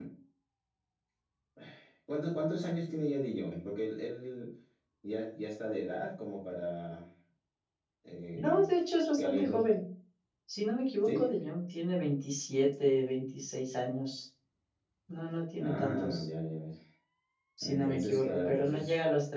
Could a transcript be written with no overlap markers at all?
No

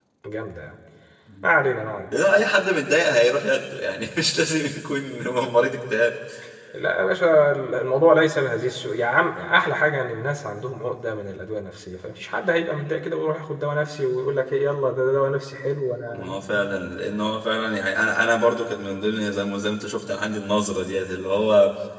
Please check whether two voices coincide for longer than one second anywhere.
No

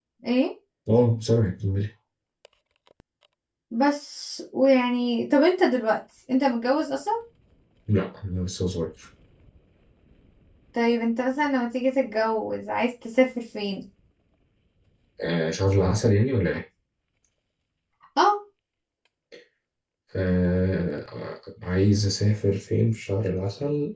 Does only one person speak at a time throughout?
Yes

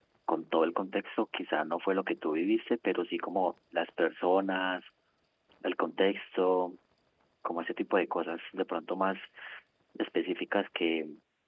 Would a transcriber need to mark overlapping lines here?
No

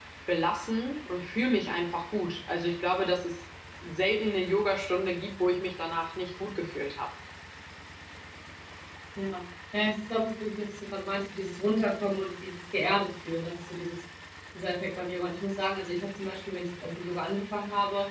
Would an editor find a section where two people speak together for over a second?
No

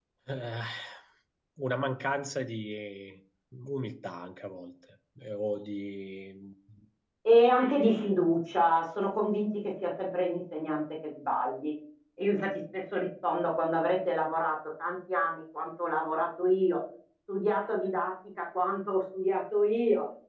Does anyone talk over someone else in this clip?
No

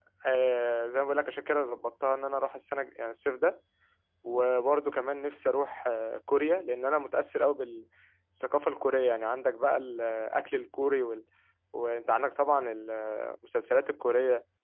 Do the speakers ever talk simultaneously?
No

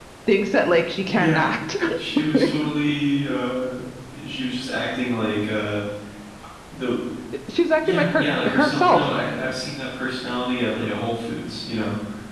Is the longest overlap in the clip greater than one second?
Yes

